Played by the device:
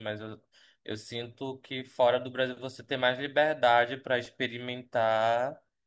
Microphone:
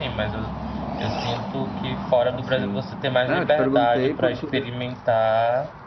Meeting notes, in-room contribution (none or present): present